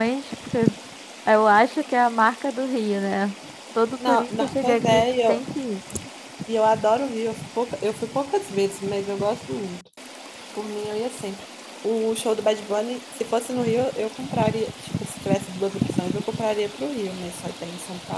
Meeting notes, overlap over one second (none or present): present